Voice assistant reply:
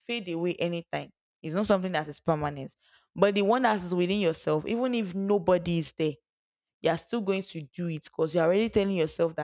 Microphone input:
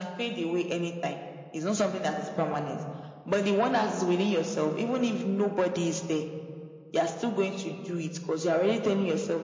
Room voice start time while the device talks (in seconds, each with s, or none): none